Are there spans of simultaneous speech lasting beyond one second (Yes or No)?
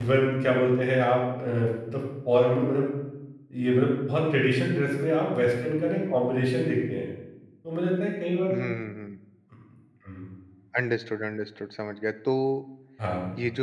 No